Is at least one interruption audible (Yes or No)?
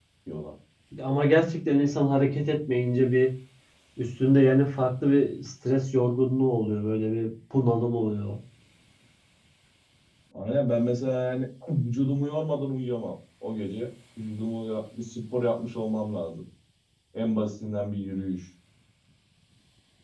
No